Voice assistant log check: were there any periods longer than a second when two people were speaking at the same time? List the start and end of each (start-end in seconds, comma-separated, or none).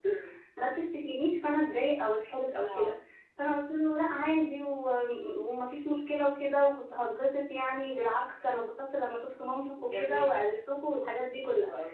none